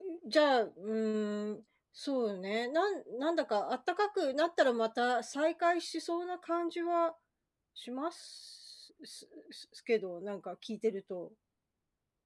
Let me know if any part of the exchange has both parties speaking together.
No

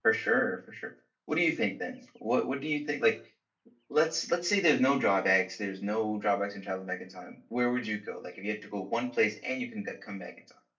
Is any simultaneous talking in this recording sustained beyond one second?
No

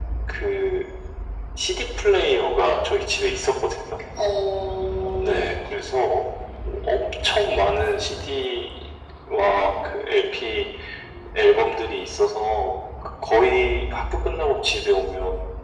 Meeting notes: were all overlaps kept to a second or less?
Yes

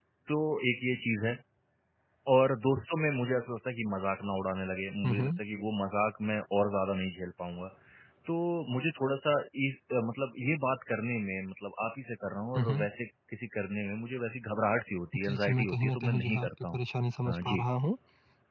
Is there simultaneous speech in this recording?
Yes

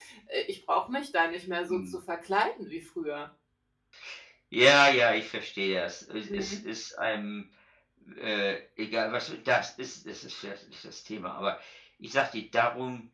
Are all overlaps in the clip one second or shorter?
Yes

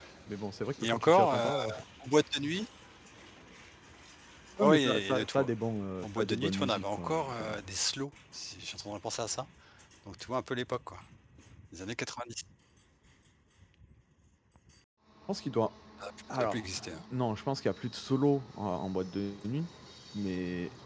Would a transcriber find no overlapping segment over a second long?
No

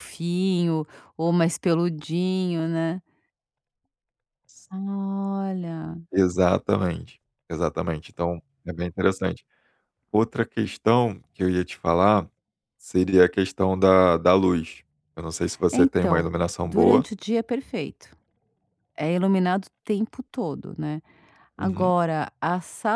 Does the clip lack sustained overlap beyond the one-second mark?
No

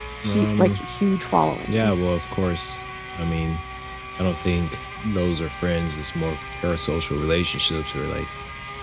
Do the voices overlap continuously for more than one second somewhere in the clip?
No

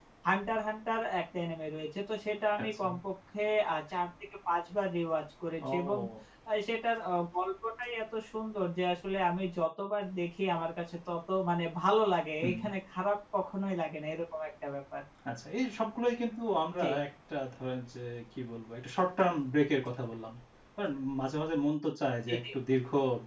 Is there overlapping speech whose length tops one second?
No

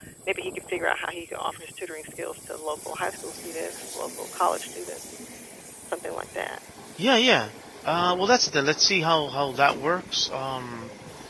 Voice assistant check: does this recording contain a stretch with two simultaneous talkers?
No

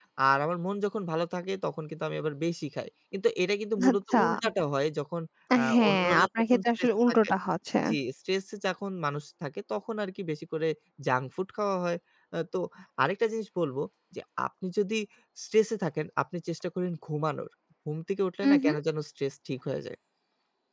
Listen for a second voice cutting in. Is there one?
Yes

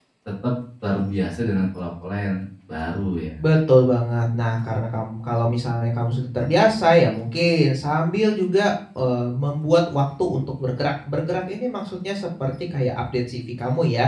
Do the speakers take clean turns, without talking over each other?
Yes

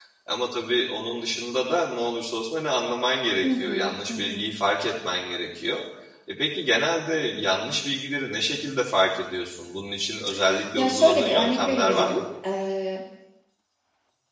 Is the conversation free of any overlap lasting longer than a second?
No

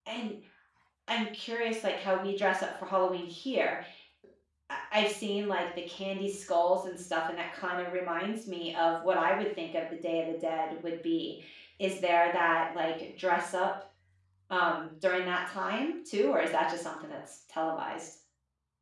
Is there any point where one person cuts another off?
No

